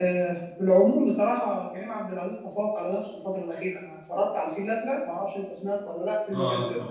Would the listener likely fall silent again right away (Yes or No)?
No